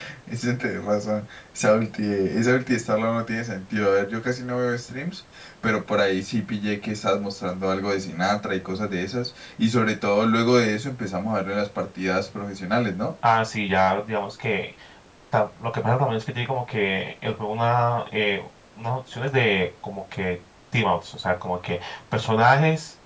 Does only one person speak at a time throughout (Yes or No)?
Yes